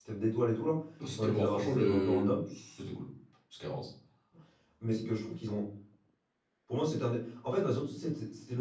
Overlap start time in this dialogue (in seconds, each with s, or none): 1.2 s